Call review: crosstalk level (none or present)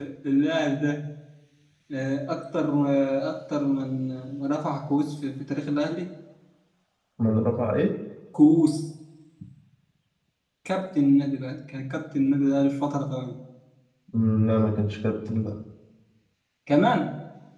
none